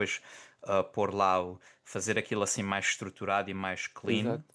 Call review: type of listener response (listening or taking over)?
listening